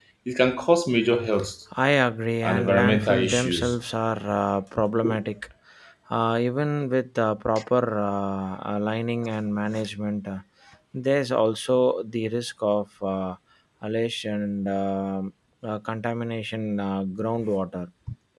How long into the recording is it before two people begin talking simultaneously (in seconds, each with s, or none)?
2.4 s